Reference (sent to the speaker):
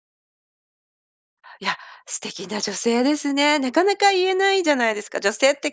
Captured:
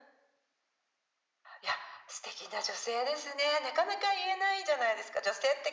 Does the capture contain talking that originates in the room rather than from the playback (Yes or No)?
No